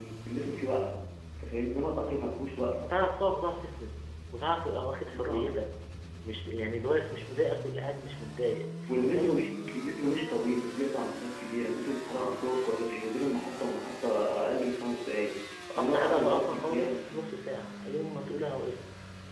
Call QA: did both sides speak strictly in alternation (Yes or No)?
No